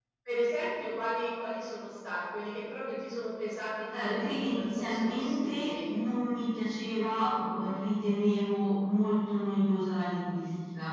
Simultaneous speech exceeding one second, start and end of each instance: 3.9-5.9

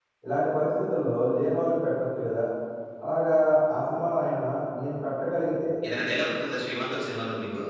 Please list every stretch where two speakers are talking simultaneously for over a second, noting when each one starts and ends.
none

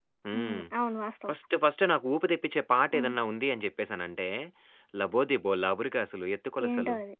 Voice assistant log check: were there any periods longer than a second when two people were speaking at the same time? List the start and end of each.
none

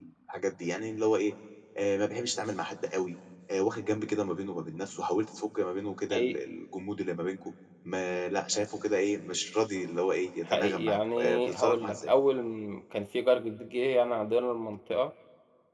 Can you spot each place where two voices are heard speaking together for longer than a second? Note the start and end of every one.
10.4-12.1

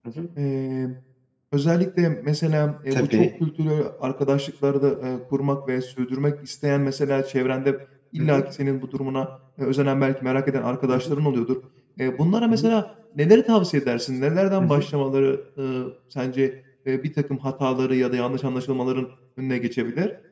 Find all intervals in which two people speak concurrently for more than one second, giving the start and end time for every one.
none

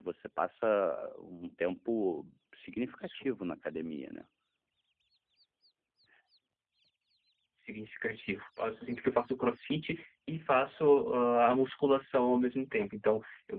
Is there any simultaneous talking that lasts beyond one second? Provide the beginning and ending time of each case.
none

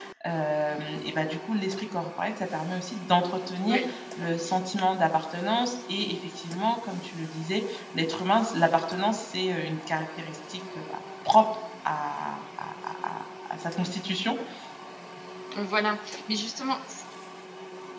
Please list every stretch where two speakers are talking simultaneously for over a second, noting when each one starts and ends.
none

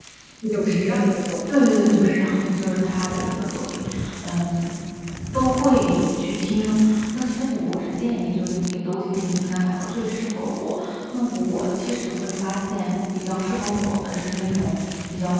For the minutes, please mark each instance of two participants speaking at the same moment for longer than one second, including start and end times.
none

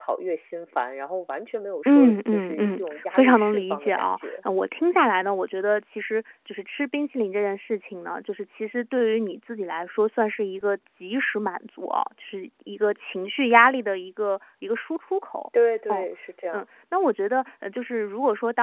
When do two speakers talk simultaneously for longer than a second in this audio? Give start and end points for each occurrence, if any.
1.9-4.3

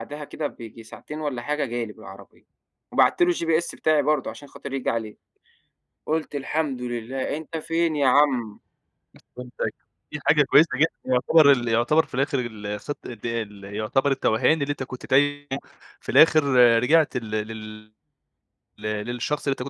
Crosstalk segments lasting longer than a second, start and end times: none

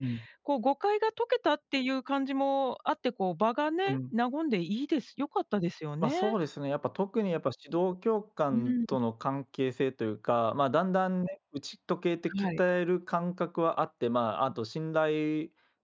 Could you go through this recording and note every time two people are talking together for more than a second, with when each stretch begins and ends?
none

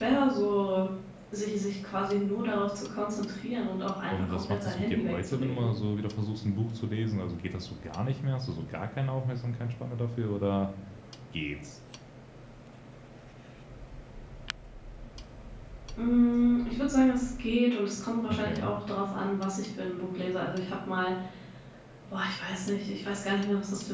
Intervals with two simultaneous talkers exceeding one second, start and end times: 4.1-5.7

